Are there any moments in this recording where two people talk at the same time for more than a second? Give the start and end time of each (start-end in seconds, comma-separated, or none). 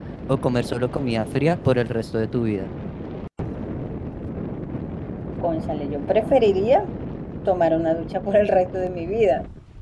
none